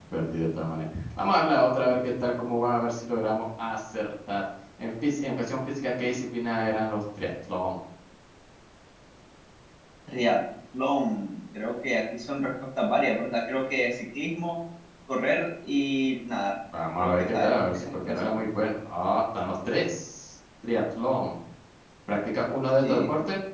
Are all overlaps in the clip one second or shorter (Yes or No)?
No